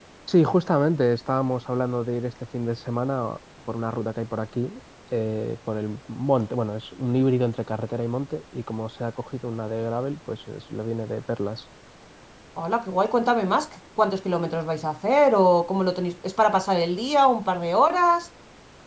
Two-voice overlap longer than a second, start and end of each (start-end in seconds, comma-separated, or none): none